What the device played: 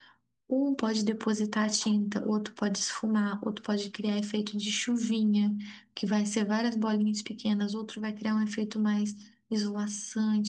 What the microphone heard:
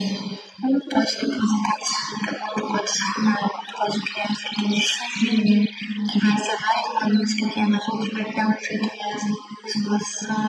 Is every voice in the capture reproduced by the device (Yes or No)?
Yes